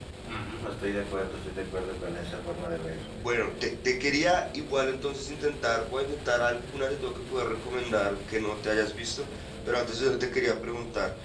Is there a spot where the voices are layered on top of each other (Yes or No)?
No